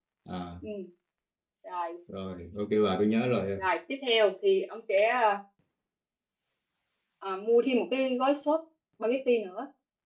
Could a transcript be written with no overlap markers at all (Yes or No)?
Yes